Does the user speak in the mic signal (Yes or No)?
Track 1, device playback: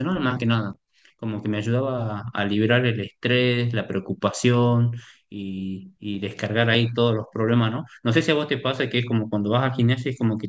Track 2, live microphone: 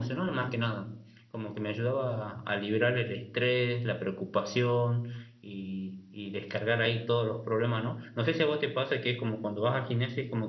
No